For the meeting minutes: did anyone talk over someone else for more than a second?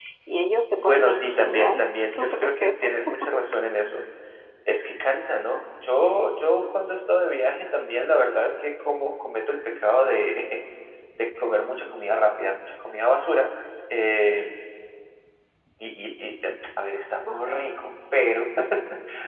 Yes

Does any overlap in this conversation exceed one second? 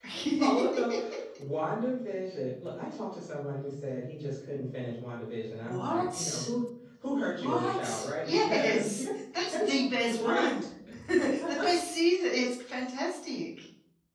Yes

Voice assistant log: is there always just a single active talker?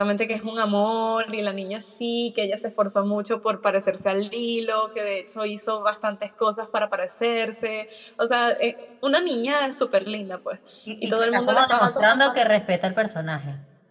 No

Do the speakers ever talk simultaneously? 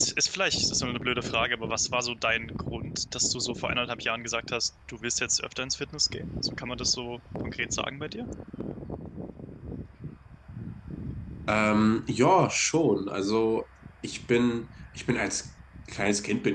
No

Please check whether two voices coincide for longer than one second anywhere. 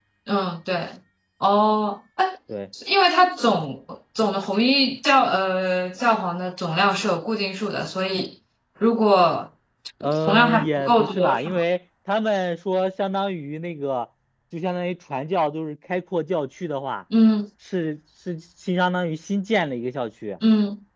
Yes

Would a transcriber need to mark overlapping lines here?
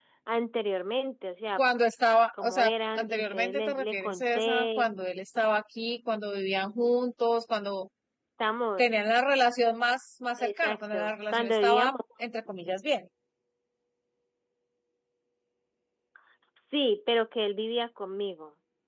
Yes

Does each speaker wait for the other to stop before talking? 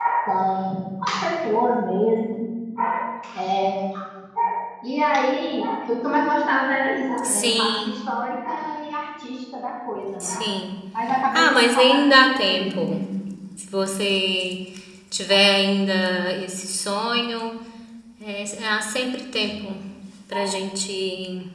No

